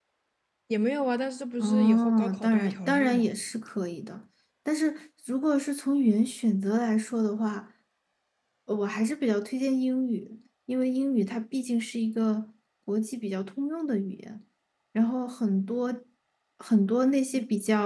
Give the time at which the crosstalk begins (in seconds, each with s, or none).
1.6 s